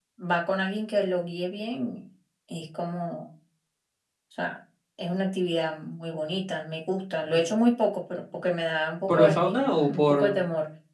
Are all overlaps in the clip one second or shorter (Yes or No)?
No